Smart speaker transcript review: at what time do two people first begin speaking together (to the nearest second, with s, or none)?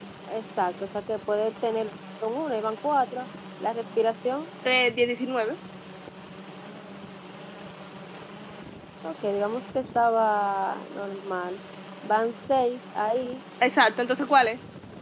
none